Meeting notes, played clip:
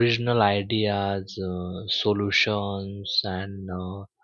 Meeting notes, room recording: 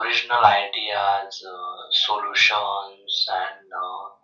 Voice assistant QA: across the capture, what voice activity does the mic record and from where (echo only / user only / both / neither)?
echo only